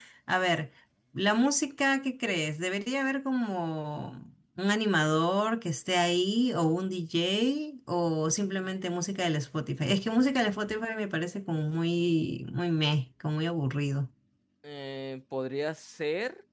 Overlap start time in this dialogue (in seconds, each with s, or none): none